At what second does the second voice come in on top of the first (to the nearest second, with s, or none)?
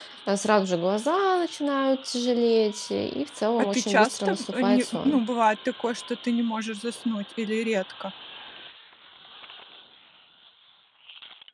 4 s